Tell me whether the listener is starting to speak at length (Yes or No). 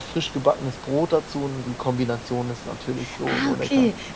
Yes